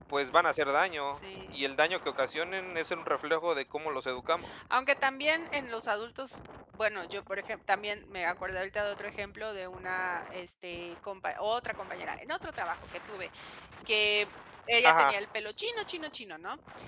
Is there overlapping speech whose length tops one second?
No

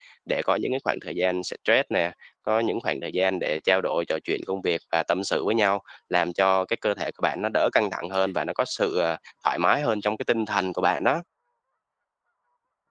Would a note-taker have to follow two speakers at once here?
No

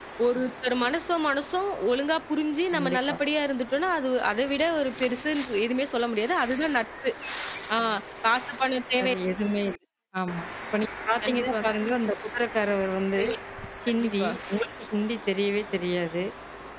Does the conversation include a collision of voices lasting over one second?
No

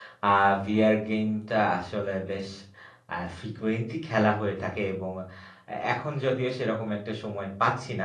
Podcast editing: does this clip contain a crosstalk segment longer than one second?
No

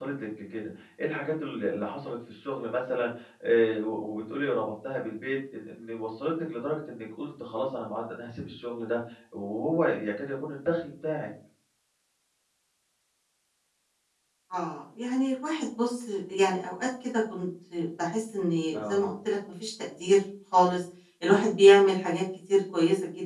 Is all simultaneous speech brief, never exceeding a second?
Yes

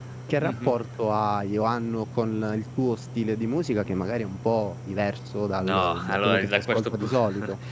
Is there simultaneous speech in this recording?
Yes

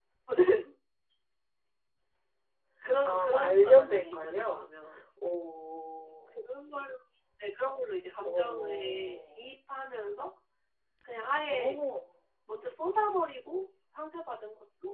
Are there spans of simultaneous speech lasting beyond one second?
Yes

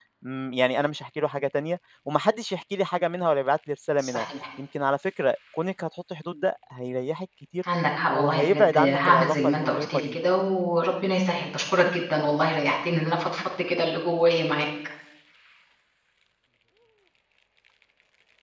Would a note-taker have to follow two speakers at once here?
Yes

